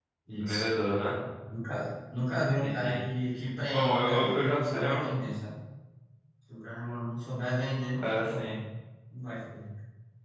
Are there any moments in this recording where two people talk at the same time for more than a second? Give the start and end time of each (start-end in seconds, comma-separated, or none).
3.7-5.1